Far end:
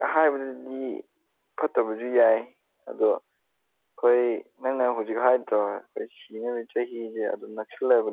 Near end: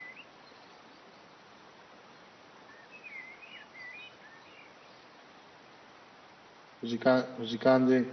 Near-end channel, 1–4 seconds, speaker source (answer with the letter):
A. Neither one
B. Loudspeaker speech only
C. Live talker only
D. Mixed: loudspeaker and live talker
A